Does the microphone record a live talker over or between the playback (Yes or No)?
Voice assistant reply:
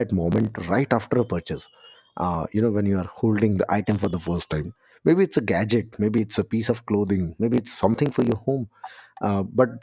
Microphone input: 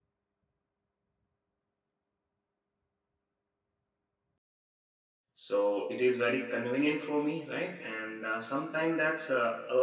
Yes